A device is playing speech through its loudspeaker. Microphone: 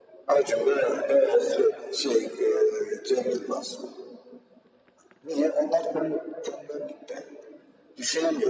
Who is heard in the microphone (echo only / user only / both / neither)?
echo only